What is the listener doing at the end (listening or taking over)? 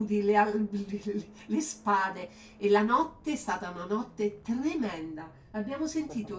listening